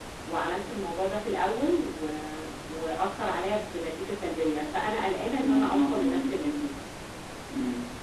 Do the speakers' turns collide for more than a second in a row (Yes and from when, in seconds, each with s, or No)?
Yes, from 5.4 s